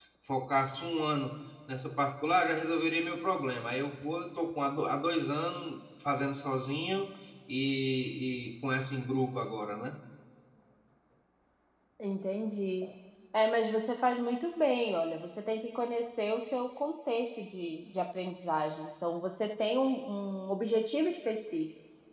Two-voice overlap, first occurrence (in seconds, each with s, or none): none